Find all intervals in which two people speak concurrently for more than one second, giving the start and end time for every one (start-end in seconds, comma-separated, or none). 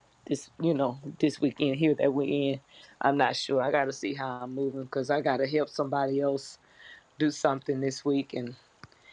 none